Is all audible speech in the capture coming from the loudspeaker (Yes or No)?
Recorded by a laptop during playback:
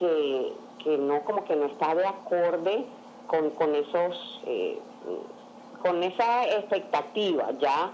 Yes